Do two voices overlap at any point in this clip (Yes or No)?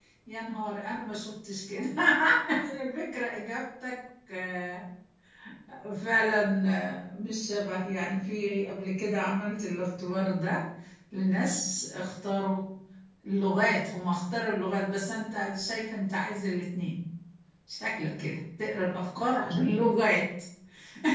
No